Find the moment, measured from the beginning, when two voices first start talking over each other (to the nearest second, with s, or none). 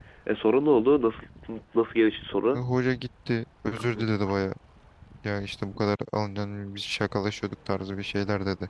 none